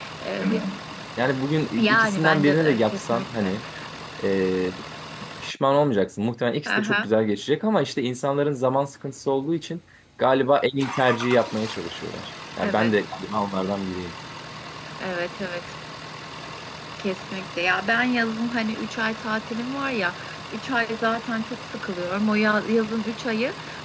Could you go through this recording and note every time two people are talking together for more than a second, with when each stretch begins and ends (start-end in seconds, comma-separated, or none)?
1.8-3.5